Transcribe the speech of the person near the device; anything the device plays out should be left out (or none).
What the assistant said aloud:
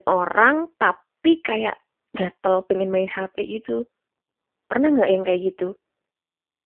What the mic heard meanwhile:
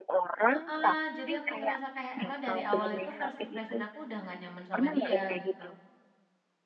Heeh, jadi aku ngerasa kayak emang dari awal itu first impression aku udah nggak nyaman sama dia, gitu.